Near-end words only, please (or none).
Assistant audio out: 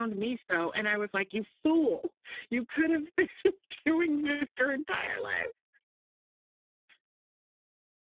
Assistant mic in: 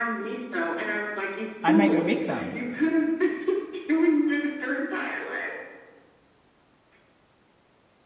I might go make some.